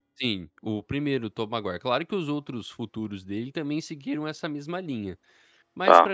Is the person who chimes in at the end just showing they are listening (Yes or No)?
No